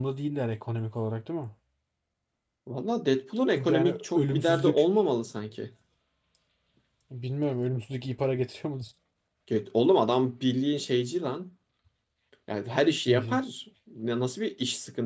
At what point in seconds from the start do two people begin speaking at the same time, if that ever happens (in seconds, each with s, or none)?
3.6 s